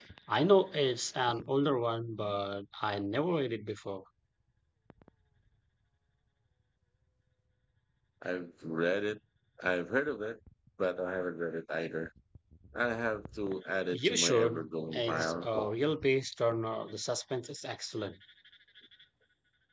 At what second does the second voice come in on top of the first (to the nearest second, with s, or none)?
14 s